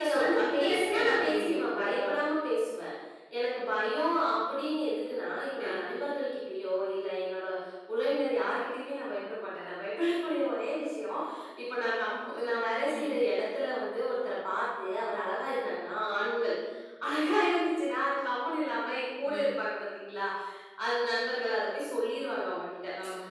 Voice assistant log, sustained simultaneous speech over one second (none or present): present